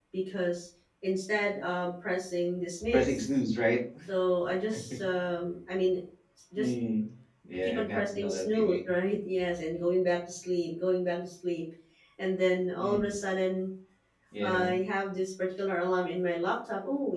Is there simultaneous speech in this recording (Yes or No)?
Yes